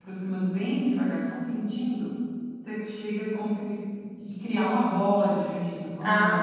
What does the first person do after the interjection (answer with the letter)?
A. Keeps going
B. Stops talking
B